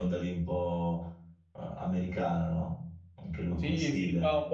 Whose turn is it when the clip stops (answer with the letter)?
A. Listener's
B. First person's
A